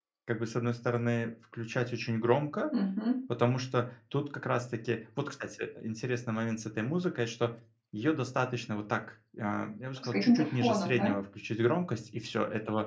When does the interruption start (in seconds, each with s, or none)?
10.0 s